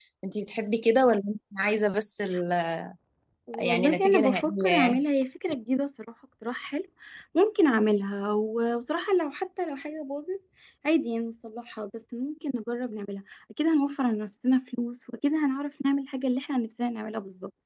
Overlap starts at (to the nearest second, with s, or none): 4 s